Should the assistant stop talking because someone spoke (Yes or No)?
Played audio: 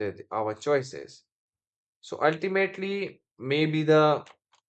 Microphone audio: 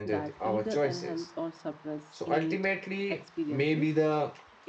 Yes